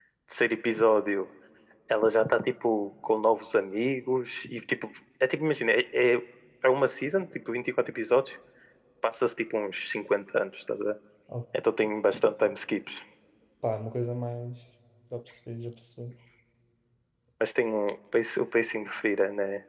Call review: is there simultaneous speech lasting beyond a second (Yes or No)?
No